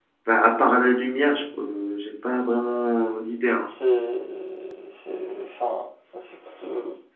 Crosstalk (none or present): none